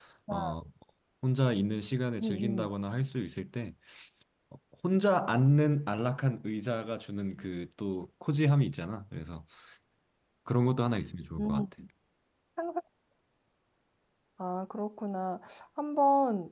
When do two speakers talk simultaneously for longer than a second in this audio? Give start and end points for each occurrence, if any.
none

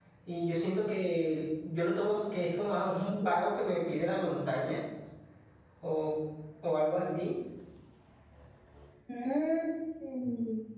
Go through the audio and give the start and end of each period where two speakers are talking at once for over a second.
none

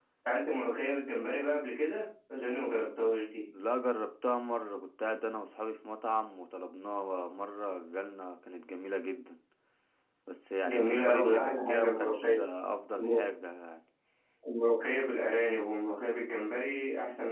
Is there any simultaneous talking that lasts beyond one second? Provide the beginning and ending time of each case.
10.6-12.4

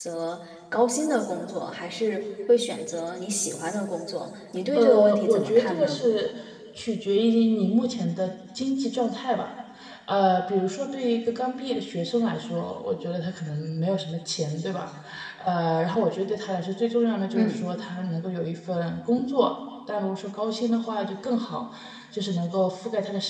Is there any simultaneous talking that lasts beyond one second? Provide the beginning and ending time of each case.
4.8-6.0

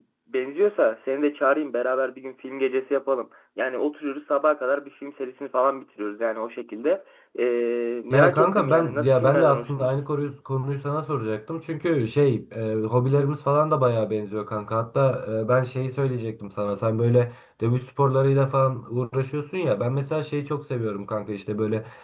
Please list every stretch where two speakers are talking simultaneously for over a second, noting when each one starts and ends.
8.1-9.9

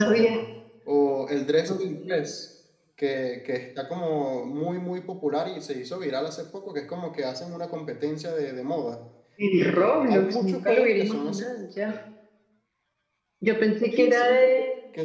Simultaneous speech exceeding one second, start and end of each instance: 9.7-11.4

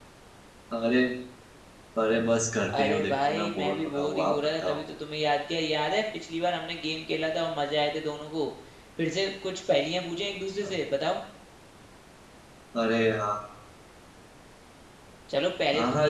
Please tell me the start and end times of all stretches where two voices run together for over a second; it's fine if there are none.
2.8-4.8

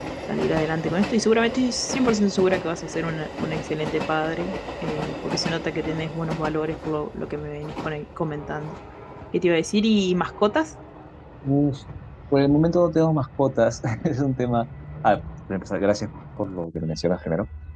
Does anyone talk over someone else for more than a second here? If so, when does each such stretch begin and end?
none

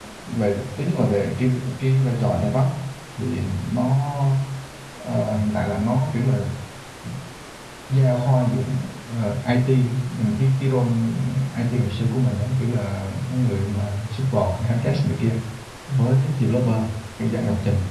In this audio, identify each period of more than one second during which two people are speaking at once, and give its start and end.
none

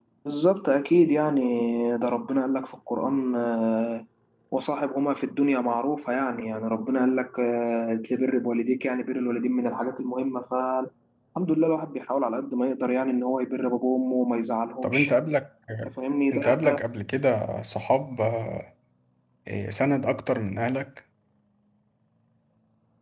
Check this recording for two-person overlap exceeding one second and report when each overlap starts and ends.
none

